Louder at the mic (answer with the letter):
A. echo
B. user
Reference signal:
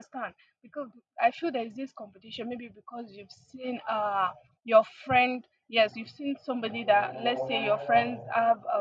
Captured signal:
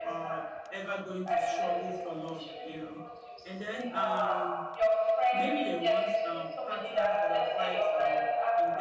A